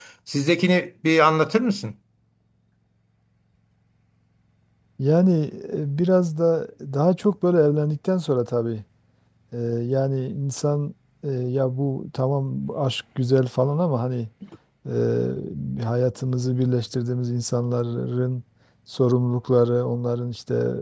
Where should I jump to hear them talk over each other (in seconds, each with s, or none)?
none